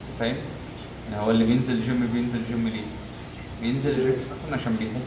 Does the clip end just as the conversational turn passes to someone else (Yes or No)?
No